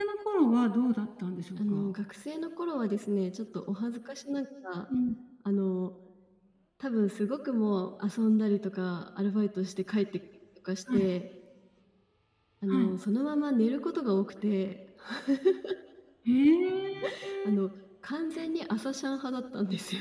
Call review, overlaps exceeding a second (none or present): none